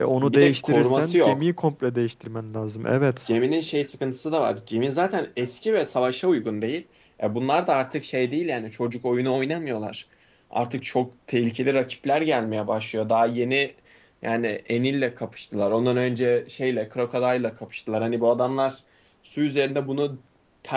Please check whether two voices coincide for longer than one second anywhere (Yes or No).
Yes